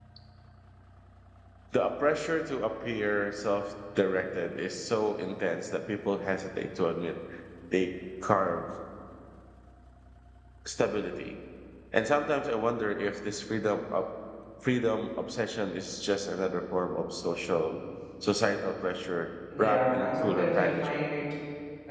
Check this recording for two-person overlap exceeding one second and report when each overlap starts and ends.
19.6-21.0

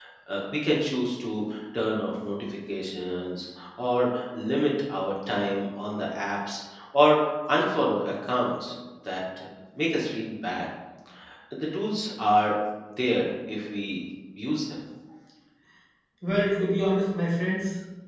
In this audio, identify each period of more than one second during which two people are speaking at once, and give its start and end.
none

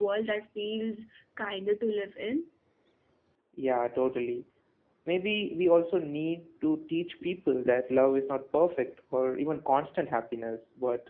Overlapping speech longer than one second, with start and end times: none

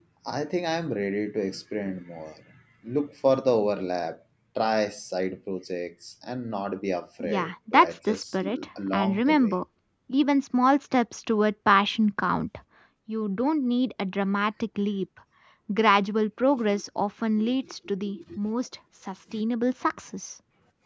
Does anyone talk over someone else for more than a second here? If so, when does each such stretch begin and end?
7.2-9.6

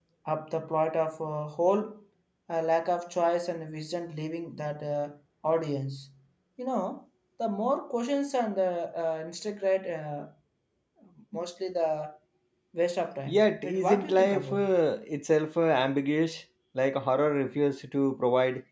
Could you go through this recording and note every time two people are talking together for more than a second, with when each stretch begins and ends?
13.3-14.7

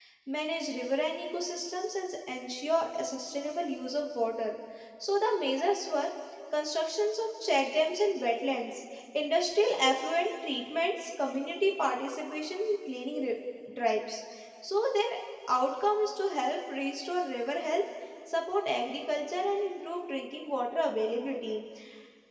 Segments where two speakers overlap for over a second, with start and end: none

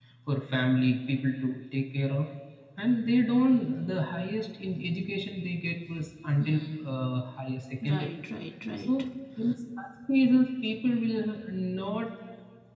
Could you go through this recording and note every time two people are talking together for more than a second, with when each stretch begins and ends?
none

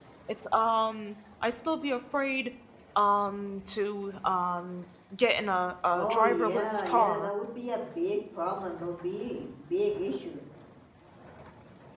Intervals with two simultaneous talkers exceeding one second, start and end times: 5.9-7.3

